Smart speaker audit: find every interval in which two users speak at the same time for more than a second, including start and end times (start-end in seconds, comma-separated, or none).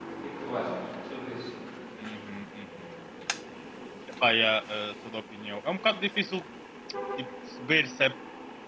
none